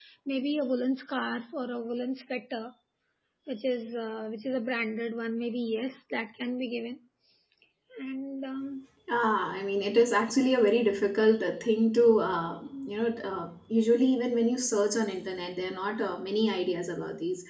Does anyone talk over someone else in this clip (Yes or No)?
No